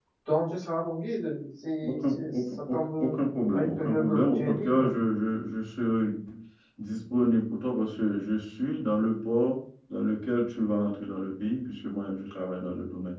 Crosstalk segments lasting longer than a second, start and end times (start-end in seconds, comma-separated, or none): 1.8-3.1, 3.5-4.9